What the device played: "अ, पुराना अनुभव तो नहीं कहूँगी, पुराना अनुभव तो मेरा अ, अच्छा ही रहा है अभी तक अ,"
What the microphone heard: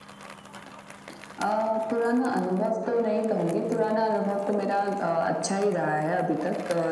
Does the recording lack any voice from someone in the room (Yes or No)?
Yes